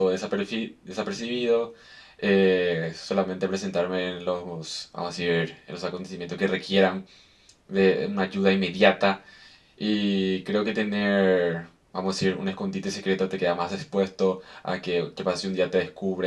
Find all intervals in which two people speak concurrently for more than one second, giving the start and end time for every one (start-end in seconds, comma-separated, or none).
none